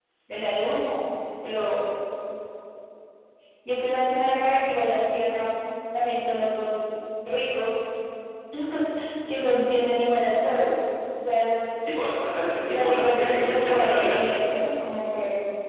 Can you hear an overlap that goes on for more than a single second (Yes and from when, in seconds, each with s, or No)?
Yes, from 12.6 s